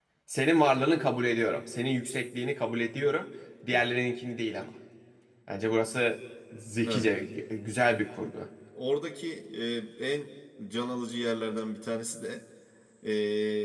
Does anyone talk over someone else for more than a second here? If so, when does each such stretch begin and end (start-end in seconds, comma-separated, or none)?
none